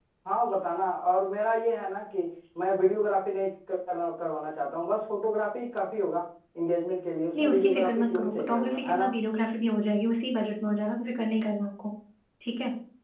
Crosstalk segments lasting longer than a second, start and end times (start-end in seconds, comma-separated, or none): 7.4-9.1